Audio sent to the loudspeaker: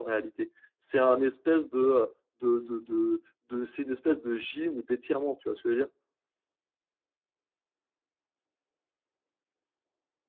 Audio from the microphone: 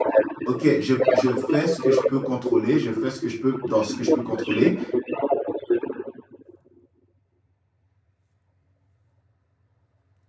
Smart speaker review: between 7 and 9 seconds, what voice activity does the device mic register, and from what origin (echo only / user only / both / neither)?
neither